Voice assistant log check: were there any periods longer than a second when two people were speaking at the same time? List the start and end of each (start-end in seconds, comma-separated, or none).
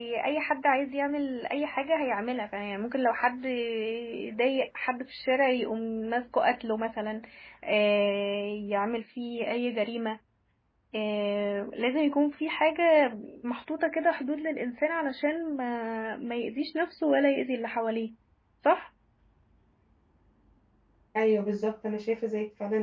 none